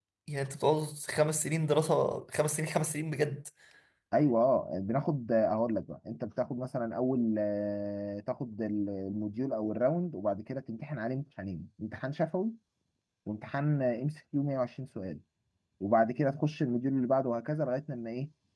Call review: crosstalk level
none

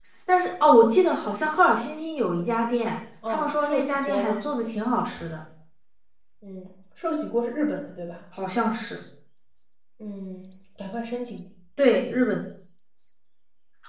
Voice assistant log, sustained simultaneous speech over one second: present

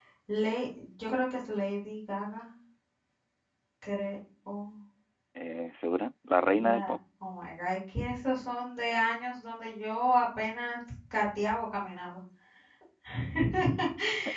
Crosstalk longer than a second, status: none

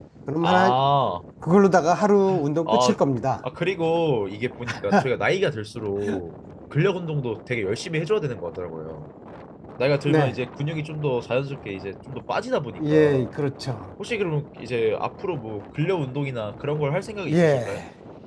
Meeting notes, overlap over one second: none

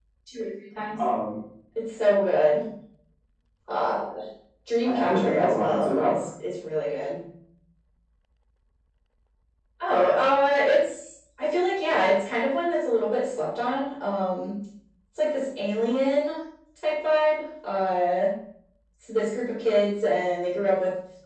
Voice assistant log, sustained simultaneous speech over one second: present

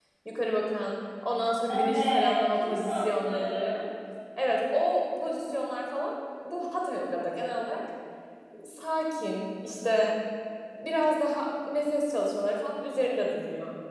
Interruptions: present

